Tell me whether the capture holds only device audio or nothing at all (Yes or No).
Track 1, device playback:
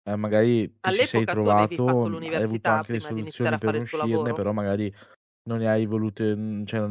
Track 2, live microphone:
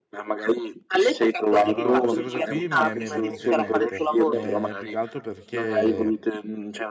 No